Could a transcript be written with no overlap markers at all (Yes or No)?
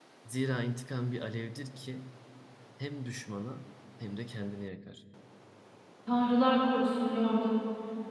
Yes